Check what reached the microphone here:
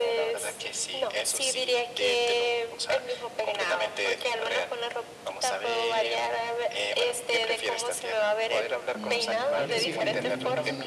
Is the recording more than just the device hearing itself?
Yes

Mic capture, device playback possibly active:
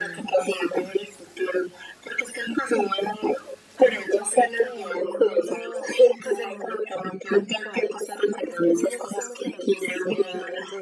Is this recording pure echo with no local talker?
No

